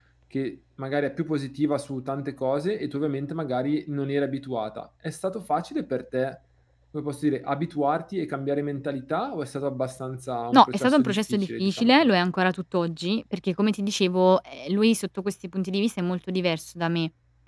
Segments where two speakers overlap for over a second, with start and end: 10.5-12.1

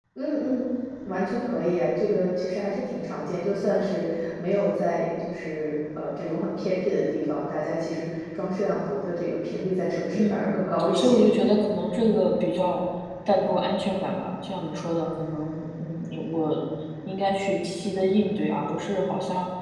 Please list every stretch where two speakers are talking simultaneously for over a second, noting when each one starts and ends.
none

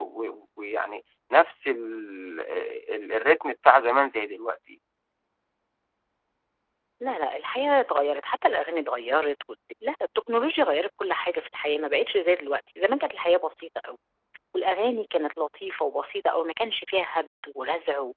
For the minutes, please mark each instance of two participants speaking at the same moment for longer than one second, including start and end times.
none

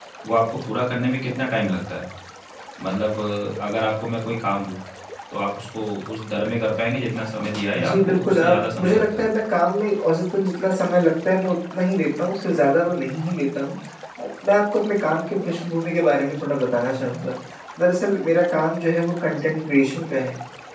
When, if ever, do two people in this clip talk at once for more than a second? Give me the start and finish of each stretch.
7.8-9.3

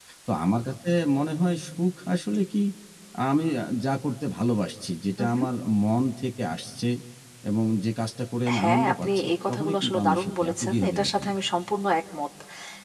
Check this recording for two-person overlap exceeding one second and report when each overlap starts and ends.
8.6-11.3

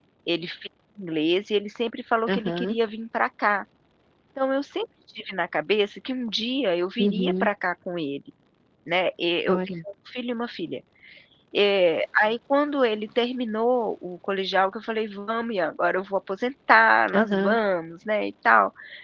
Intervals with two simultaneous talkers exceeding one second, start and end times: none

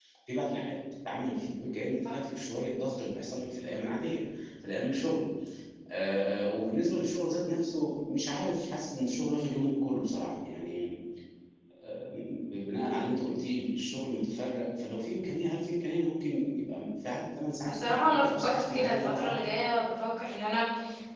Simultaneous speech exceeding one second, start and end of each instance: 17.6-19.4

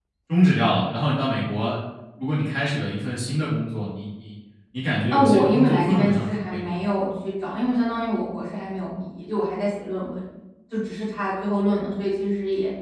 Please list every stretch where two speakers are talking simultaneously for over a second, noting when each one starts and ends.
5.1-6.6

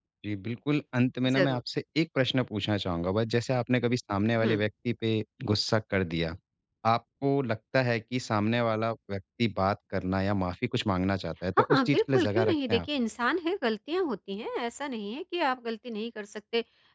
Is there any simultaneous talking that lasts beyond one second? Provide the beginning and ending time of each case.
11.6-12.8

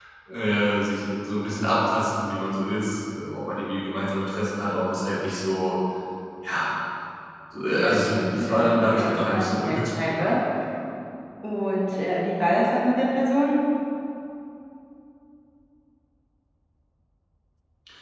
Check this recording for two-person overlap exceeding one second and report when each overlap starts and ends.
7.7-10.3

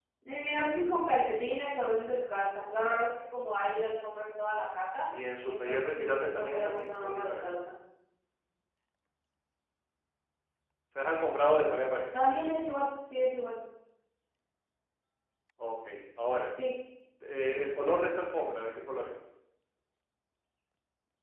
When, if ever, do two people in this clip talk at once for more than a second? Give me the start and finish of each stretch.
5.5-7.5

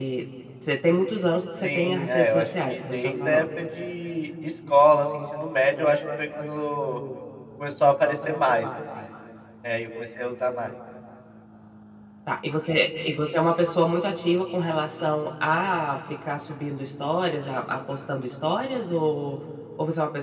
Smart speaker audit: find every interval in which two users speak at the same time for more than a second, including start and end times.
1.6-3.4

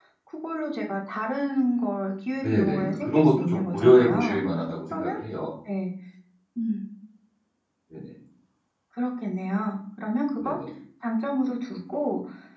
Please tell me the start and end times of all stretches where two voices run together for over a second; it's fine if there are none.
2.4-4.4

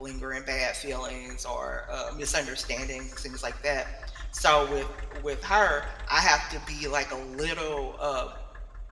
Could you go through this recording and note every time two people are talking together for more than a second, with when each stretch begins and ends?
none

